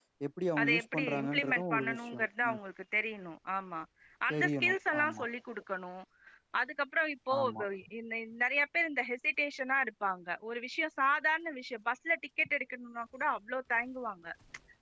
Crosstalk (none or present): present